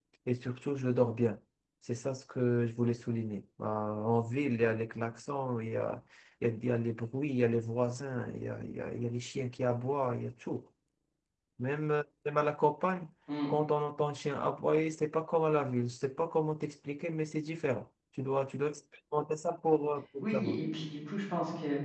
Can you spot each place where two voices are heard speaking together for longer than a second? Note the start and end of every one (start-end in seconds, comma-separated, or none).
none